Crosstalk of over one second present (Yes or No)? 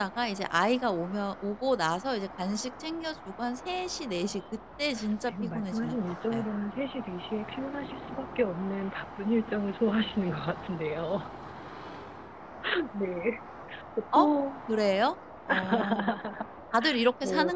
Yes